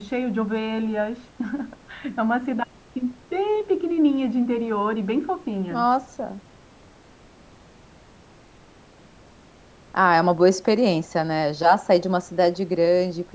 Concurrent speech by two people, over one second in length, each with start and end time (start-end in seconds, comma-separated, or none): none